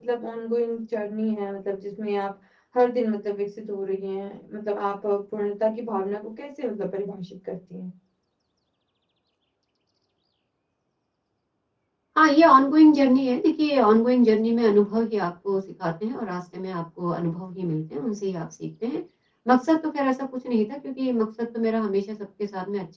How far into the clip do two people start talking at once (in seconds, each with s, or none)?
none